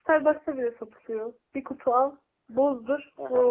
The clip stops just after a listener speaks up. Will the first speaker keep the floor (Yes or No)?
No